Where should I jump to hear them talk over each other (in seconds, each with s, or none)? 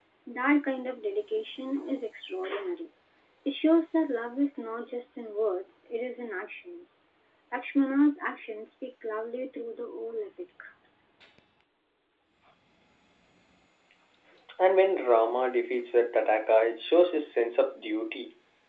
none